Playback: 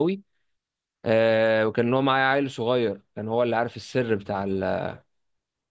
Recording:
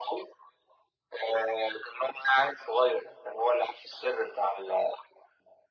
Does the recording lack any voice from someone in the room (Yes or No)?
Yes